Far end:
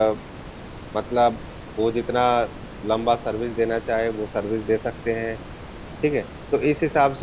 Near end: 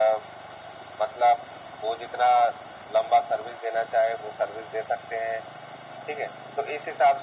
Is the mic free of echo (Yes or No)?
No